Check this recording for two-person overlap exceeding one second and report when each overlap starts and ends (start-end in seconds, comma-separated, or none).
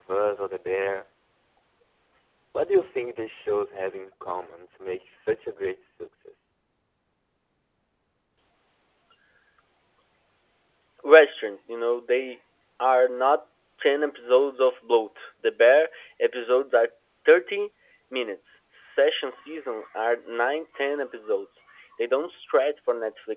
none